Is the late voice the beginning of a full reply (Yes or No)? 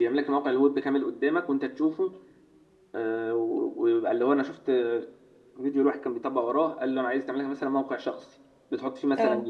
No